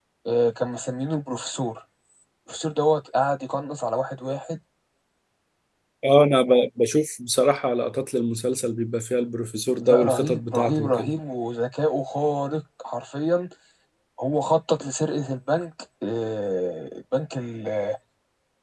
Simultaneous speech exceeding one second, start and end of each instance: 9.8-11.1

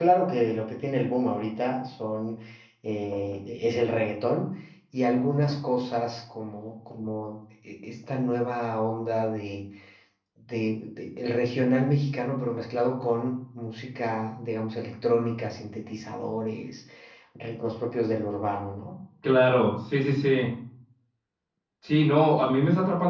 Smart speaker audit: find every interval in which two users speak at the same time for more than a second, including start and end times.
none

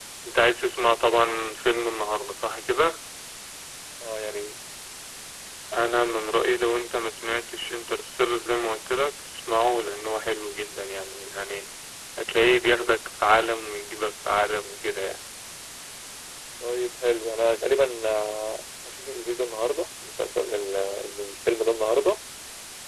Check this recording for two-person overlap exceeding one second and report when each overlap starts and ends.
none

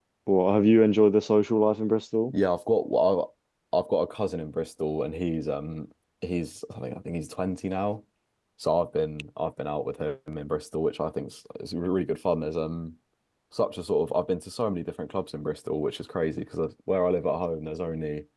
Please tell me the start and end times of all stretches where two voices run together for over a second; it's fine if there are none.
none

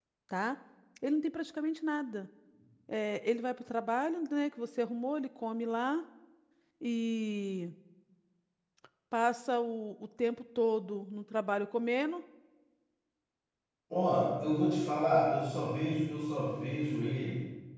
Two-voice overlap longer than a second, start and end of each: none

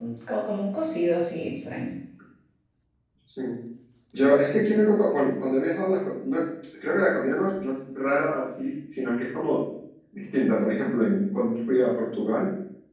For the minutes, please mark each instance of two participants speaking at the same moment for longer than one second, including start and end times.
none

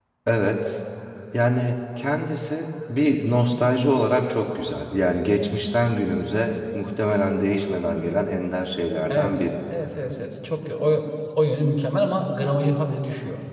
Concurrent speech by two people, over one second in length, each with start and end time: none

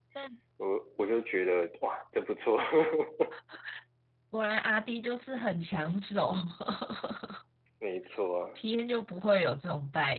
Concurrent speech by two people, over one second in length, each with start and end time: none

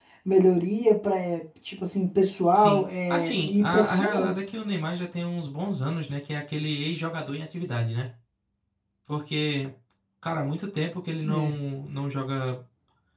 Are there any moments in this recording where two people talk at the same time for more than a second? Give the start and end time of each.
2.5-4.3

